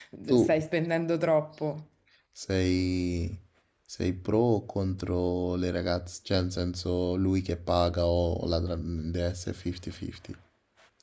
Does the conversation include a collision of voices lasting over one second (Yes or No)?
No